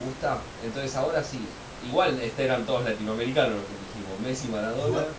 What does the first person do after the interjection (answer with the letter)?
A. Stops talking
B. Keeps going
A